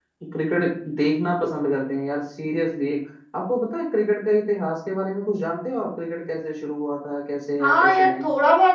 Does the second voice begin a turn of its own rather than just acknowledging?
Yes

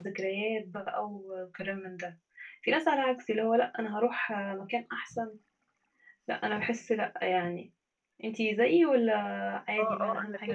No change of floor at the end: No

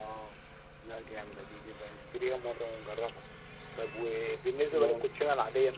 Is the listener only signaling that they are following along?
Yes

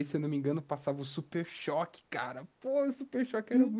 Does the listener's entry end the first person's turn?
Yes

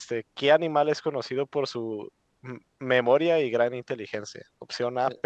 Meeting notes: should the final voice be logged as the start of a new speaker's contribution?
No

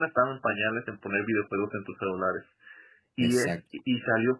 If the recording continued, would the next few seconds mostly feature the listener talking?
No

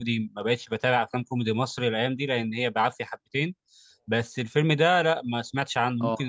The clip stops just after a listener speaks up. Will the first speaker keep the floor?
Yes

